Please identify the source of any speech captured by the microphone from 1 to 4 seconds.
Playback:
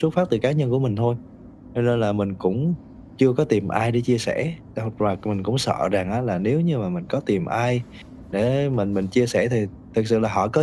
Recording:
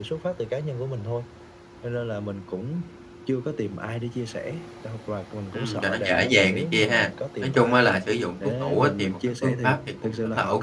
echo only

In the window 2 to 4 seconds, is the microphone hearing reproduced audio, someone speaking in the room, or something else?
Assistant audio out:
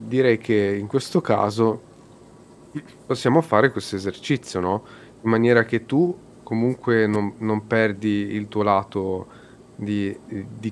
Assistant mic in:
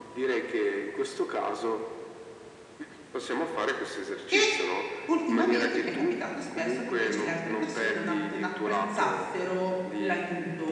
echo only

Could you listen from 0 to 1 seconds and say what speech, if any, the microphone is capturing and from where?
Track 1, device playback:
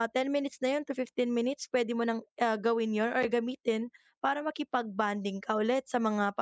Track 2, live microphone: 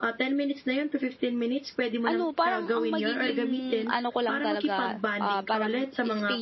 echo only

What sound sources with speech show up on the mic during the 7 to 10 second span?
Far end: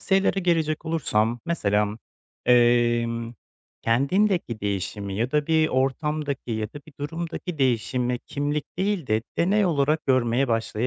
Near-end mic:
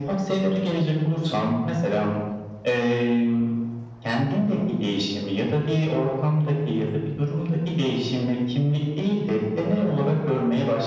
echo only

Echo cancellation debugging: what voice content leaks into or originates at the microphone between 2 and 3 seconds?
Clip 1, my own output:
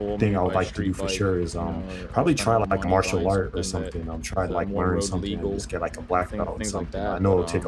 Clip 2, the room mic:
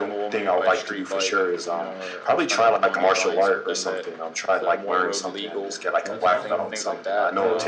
echo only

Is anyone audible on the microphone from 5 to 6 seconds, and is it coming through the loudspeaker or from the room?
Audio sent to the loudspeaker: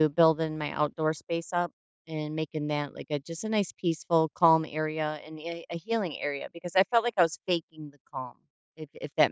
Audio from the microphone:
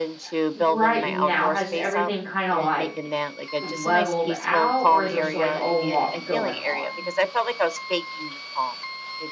both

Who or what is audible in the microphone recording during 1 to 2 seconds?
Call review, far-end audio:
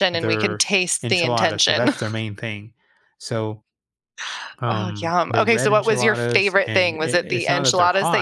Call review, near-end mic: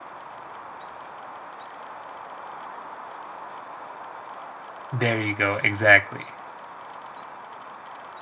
neither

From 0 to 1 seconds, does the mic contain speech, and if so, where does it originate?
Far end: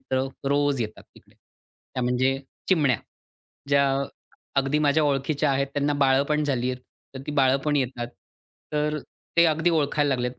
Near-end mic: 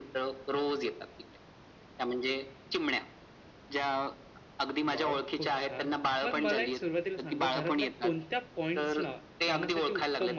echo only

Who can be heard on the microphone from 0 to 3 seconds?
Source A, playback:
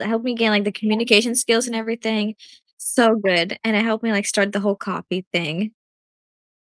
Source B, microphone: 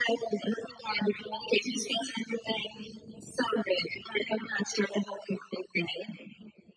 echo only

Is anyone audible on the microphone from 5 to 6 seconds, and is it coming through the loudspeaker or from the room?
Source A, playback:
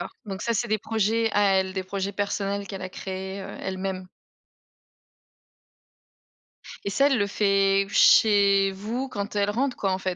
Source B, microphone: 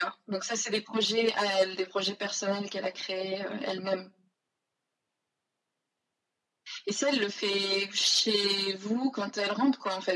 neither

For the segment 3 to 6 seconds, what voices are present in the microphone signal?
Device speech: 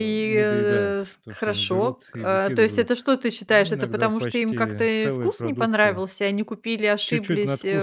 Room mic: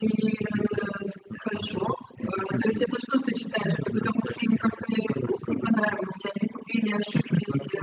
echo only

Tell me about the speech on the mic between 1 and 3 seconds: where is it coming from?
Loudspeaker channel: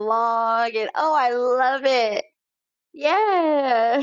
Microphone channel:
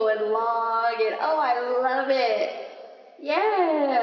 echo only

